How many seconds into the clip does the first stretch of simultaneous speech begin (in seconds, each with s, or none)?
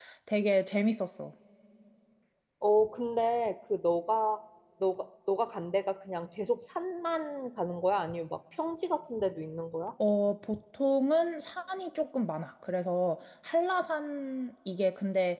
none